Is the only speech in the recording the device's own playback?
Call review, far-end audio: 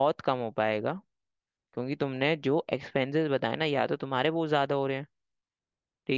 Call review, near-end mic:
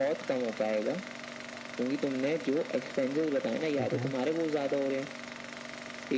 No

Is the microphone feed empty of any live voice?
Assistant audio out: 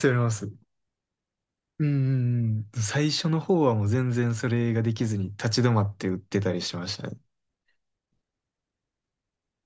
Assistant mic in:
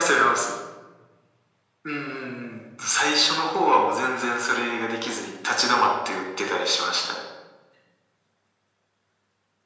Yes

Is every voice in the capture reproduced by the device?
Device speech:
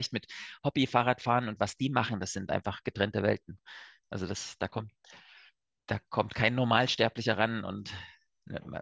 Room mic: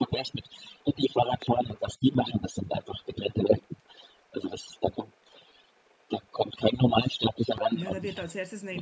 No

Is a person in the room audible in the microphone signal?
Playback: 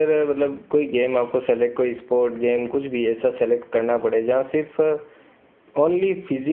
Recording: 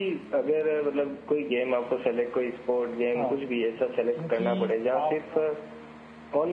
Yes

